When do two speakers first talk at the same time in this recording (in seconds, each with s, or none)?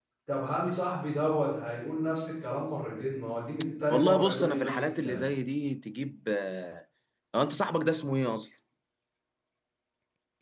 3.7 s